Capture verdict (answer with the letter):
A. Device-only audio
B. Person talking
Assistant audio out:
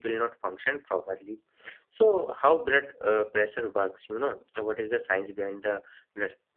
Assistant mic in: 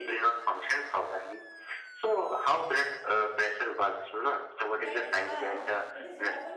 B